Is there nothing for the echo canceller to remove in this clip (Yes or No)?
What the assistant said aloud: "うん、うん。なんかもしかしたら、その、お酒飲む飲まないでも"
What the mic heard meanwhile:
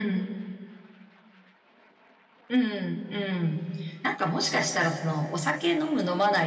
No